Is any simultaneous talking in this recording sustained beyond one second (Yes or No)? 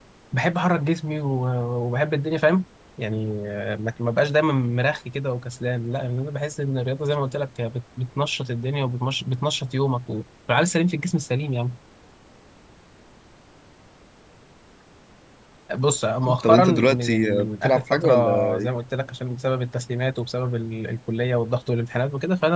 Yes